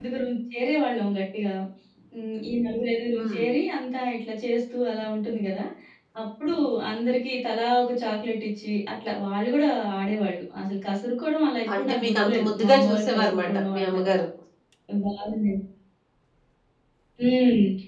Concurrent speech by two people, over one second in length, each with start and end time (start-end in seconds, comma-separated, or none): 11.8-14.1